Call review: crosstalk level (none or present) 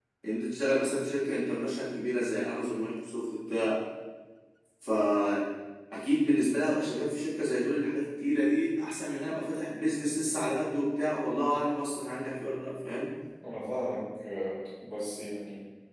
none